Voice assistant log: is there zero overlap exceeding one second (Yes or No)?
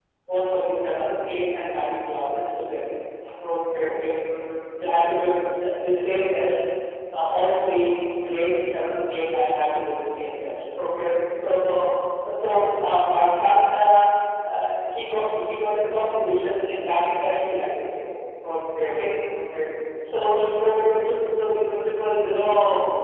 Yes